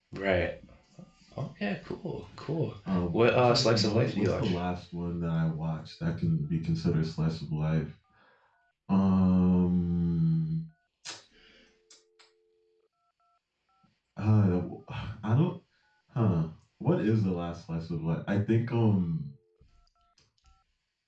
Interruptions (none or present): present